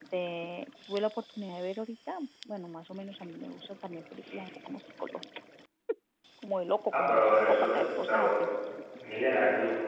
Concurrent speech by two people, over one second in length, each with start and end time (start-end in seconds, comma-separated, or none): 6.9-8.3